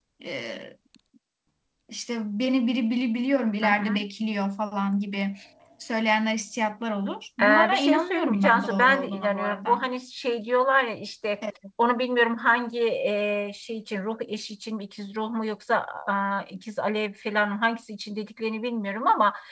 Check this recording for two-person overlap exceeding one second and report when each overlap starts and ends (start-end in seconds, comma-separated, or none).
7.4-9.8